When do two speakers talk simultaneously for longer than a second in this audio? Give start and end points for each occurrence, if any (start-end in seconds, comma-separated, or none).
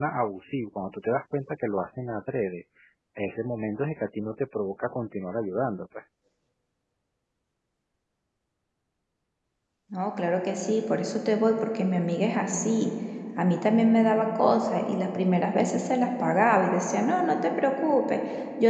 none